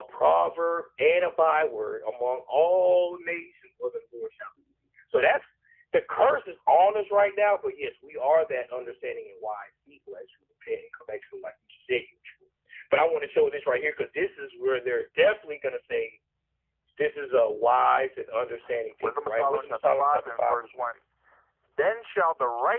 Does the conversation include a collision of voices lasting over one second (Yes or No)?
Yes